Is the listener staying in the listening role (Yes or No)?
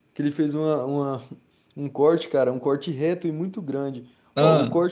Yes